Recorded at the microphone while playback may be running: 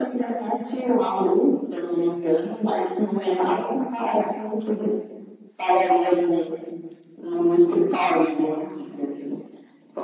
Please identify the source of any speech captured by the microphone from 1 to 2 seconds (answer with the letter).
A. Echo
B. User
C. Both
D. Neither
A